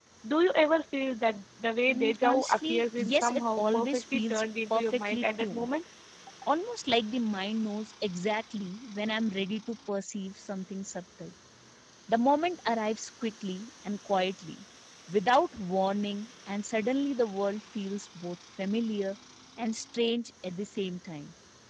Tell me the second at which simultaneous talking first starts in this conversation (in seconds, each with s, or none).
1.9 s